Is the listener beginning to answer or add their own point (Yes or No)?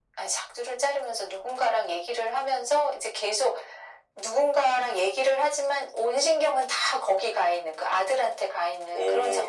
Yes